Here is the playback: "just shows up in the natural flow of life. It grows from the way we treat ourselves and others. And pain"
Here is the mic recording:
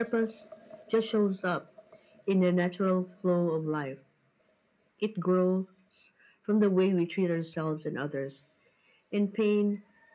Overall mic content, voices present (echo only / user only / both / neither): echo only